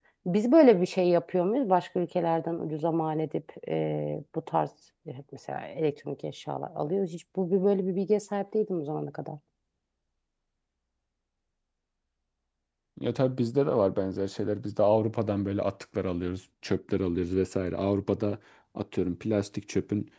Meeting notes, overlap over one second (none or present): none